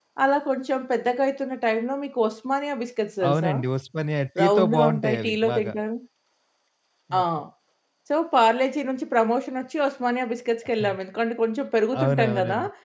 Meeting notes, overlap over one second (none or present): present